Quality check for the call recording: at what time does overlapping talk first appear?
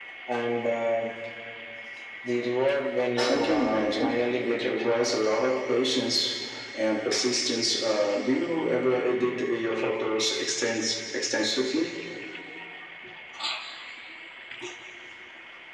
3.3 s

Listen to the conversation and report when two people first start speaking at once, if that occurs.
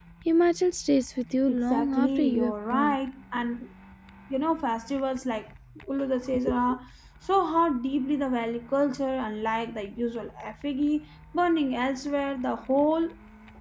1.5 s

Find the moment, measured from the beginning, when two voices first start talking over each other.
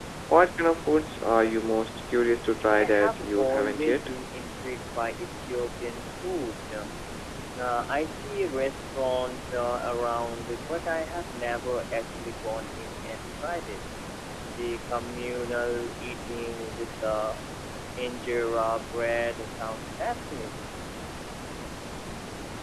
2.8 s

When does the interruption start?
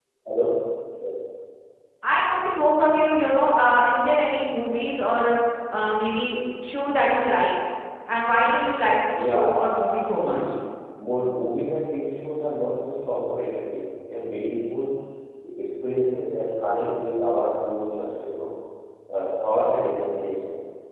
9.1 s

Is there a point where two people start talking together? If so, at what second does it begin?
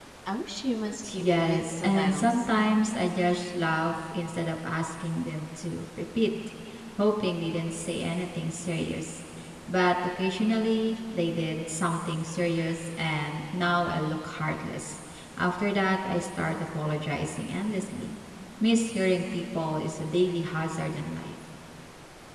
1.1 s

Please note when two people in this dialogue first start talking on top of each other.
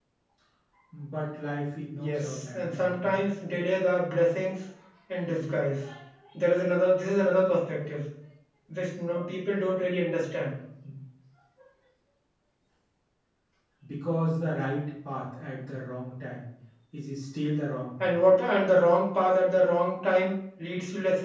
2.0 s

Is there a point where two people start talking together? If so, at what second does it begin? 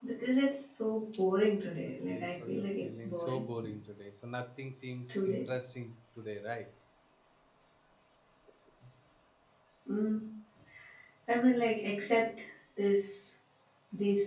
2.1 s

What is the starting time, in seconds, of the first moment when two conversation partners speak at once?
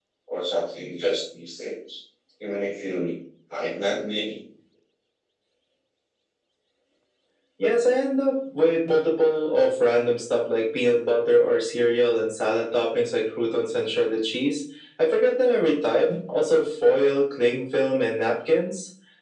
none

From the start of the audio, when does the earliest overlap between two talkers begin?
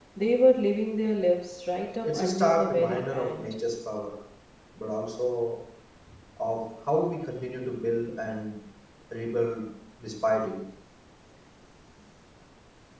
2.0 s

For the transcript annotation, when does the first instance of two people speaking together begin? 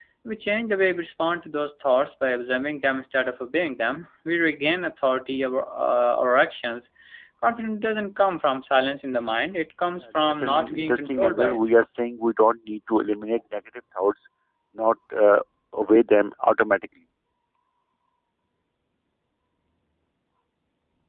10.2 s

